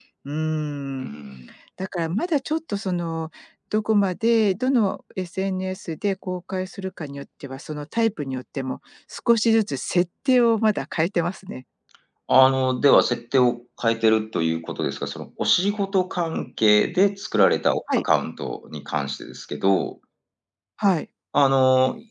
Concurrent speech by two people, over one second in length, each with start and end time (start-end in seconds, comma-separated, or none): none